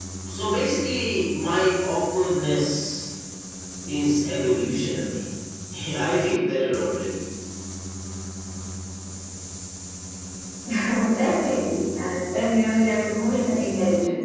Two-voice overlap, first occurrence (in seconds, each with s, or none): none